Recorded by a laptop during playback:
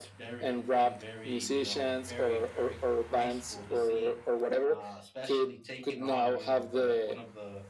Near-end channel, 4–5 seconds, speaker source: both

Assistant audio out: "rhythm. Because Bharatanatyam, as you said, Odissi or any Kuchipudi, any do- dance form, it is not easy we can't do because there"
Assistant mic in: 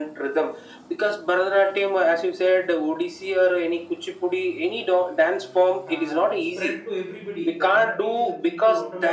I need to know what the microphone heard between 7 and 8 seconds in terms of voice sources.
both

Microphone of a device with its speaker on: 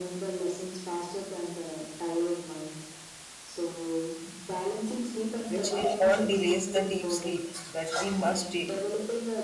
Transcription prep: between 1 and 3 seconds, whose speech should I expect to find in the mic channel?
echo only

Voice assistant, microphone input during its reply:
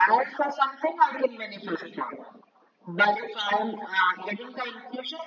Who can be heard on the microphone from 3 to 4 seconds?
echo only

